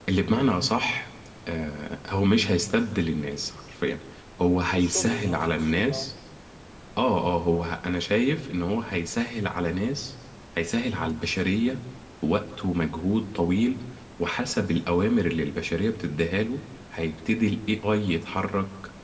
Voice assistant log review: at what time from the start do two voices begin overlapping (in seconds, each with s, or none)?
4.8 s